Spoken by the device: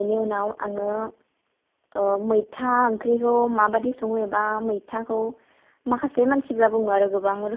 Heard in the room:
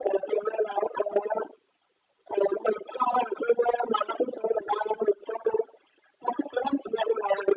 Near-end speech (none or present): none